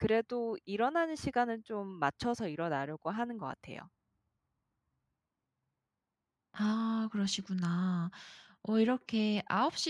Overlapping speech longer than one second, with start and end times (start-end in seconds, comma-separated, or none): none